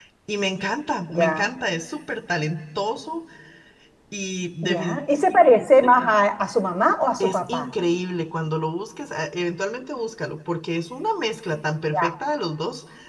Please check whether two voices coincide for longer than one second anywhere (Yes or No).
No